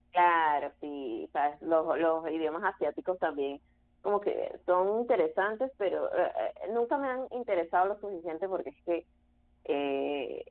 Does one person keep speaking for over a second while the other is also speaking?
No

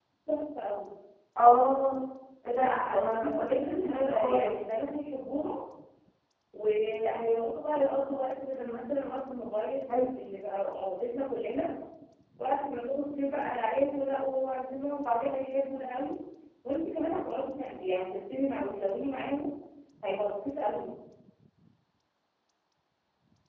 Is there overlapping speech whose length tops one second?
Yes, from 2.5 s

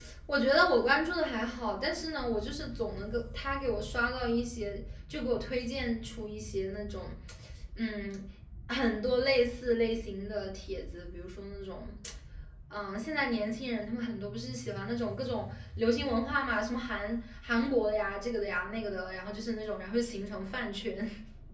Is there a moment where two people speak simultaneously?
No

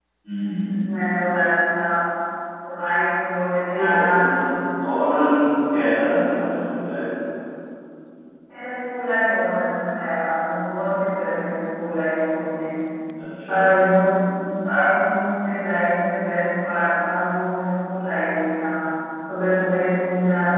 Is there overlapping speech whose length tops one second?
No

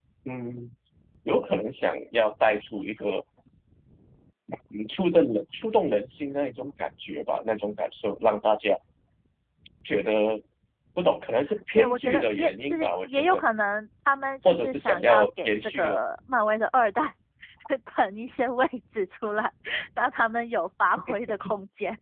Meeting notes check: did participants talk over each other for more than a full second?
Yes, from 11.8 s

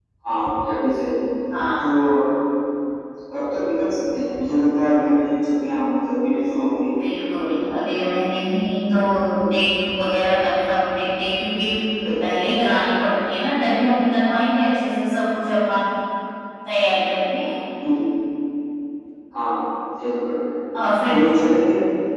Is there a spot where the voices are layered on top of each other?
No

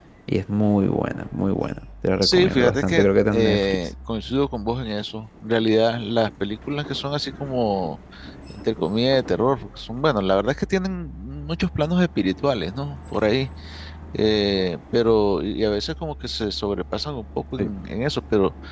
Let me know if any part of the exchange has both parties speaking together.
Yes, from 2.2 s

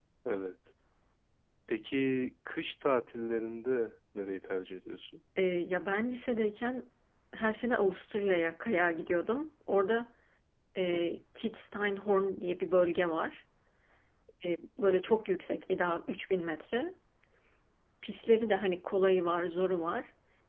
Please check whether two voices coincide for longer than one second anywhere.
No

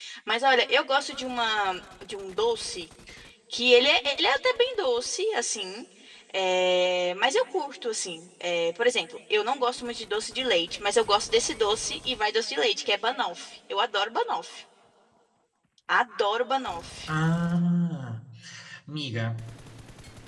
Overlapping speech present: No

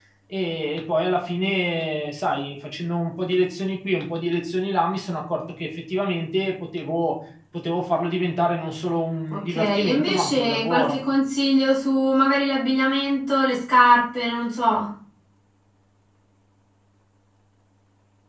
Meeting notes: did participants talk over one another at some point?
Yes, from 9.3 s

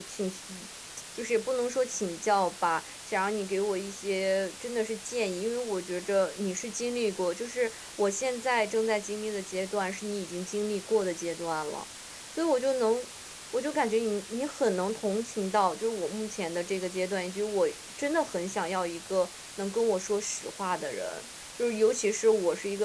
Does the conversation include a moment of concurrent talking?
No

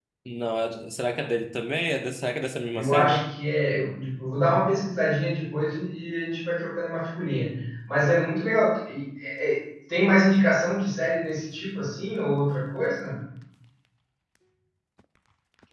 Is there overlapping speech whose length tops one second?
No

